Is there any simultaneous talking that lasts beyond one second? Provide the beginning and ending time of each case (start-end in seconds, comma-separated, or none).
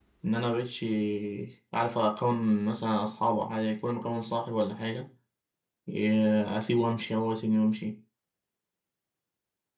none